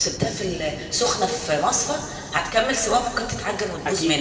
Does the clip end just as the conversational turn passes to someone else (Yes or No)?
Yes